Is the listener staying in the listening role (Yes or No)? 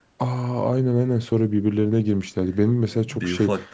Yes